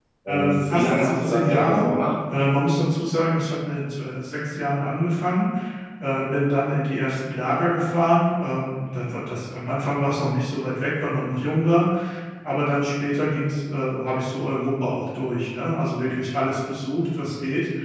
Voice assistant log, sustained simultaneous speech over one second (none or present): present